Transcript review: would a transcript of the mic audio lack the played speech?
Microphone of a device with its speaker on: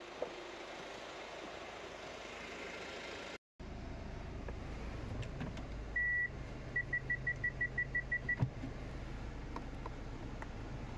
Yes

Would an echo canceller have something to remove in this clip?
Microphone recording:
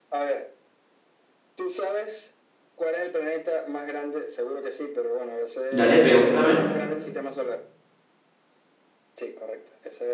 Yes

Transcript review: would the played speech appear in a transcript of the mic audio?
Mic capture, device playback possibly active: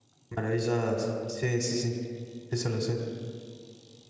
No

